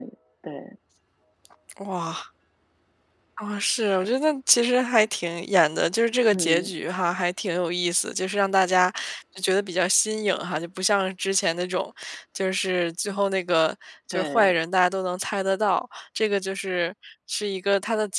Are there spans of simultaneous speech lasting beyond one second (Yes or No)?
No